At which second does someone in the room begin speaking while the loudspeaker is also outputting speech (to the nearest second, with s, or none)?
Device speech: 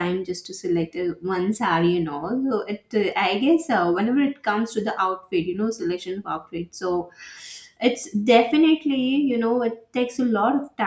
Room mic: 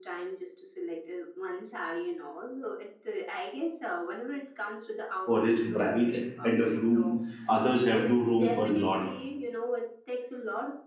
5 s